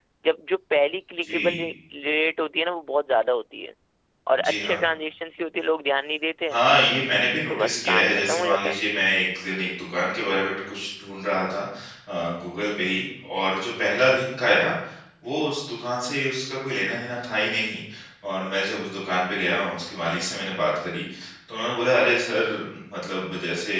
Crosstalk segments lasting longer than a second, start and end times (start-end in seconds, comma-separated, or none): 7.5-8.8